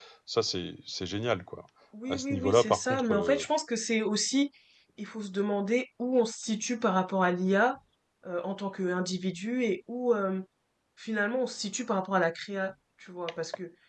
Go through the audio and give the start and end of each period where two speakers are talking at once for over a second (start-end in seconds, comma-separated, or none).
2.1-3.4